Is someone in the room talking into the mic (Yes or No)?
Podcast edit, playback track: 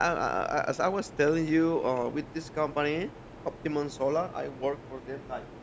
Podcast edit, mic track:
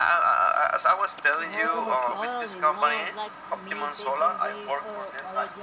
Yes